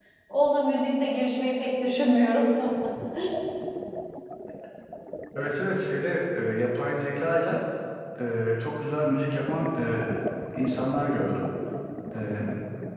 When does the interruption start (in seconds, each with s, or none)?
none